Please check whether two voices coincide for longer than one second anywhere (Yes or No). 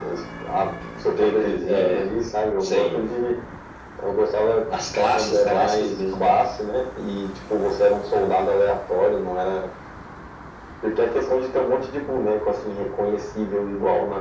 Yes